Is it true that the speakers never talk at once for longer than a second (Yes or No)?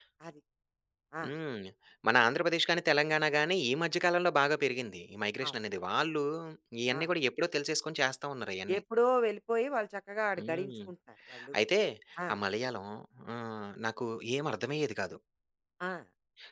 Yes